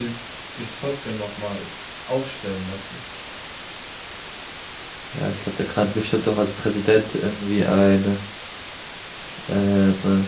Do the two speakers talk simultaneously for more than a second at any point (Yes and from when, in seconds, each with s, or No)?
No